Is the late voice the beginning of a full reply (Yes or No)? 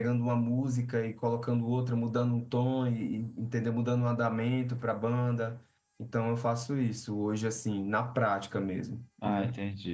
Yes